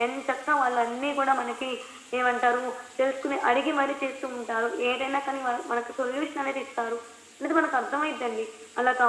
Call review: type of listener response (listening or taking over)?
listening